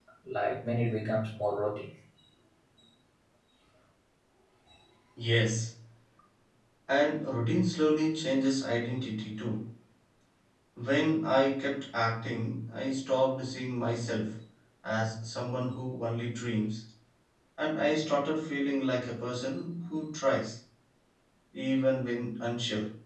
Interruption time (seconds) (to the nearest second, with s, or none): none